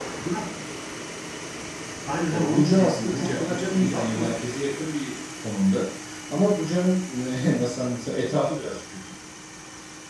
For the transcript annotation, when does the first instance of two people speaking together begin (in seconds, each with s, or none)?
2.3 s